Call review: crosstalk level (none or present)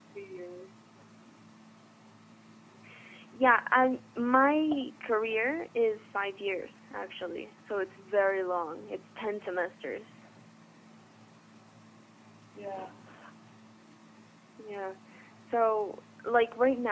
none